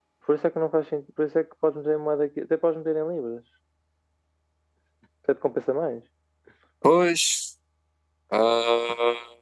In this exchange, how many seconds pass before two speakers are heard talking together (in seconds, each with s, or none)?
none